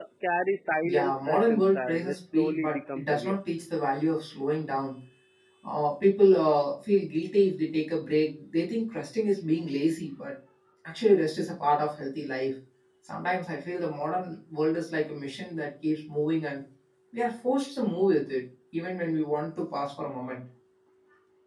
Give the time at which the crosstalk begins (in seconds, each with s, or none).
0.8 s